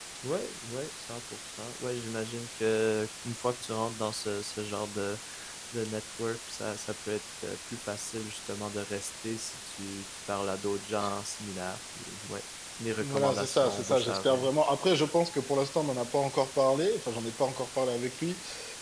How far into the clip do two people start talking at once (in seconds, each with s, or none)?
13.0 s